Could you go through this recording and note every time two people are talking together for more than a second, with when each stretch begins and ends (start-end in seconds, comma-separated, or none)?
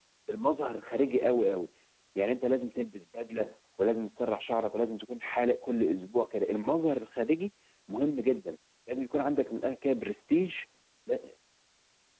none